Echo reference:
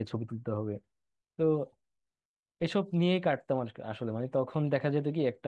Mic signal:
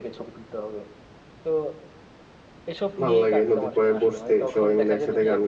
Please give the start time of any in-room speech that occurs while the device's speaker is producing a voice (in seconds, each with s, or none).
3.0 s